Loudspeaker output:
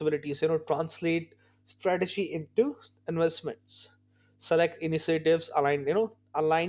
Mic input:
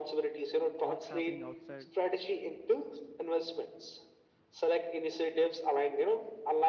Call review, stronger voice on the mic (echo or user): echo